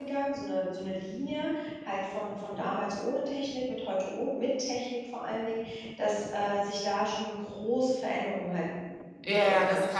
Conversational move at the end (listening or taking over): taking over